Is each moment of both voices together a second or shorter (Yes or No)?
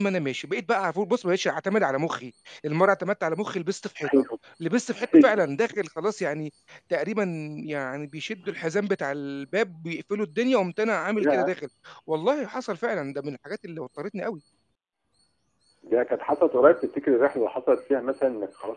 Yes